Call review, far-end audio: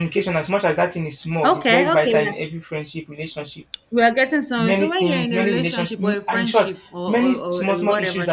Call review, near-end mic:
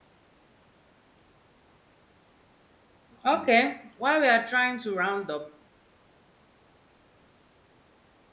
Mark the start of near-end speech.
3.2 s

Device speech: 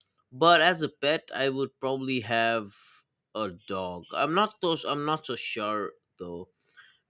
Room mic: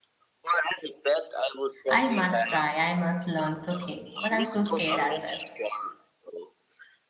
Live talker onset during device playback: 1.9 s

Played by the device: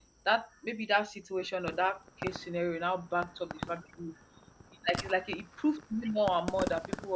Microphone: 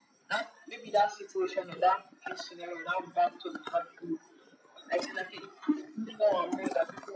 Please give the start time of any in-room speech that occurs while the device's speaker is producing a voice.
none

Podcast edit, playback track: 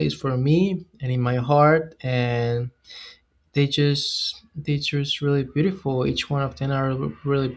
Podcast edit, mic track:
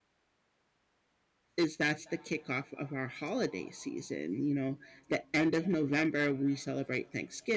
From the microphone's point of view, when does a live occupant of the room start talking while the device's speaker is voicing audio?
1.6 s

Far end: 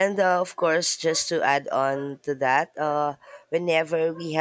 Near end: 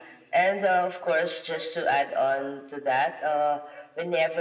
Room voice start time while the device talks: none

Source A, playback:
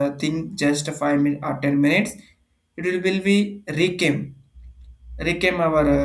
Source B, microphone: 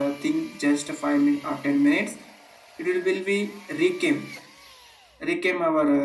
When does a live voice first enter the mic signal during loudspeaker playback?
none

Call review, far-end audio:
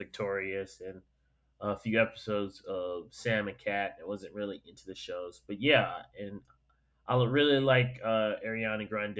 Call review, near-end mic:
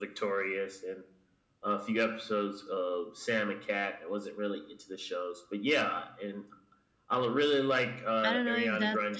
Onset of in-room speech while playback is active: 8.2 s

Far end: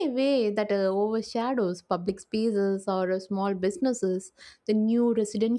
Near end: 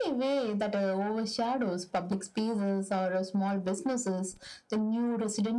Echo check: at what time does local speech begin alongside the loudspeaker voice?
none

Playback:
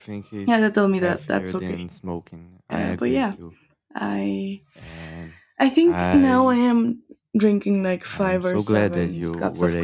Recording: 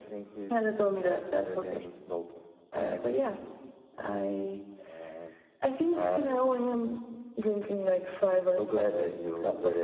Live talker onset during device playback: none

